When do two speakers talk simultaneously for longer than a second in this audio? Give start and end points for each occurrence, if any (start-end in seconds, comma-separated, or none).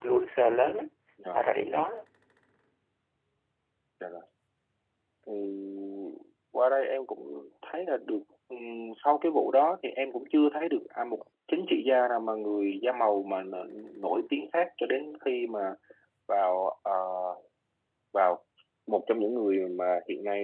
none